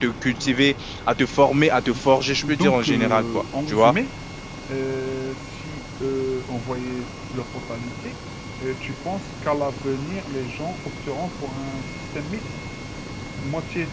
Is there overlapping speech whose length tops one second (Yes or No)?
Yes